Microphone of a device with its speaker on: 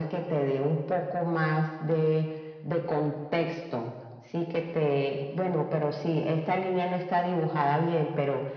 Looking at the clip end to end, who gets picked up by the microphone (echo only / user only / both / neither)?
echo only